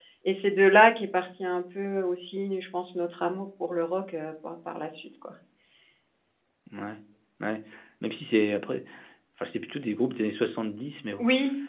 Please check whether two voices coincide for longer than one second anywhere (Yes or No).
No